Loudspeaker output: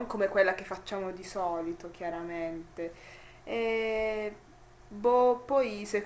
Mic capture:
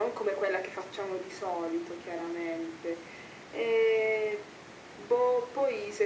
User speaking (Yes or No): No